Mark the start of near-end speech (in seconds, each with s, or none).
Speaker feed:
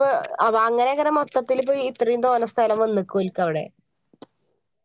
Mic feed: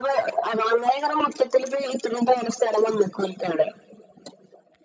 none